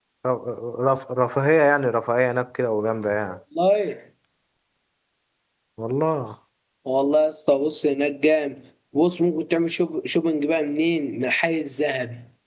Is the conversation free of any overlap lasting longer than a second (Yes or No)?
Yes